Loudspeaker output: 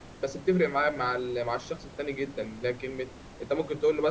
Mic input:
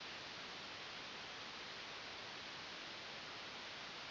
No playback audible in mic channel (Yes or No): Yes